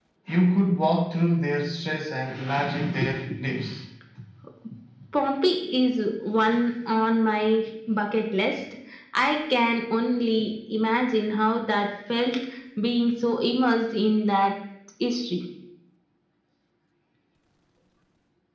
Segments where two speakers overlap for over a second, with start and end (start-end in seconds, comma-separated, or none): none